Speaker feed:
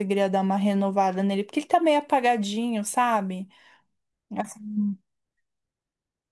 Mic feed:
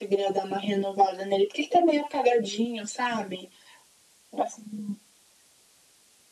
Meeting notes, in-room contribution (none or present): none